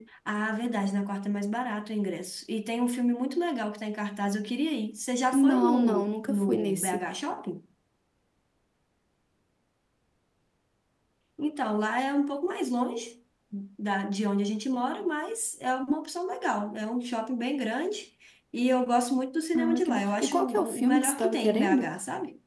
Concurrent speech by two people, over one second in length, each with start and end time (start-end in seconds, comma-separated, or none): 5.3-7.1, 19.6-21.9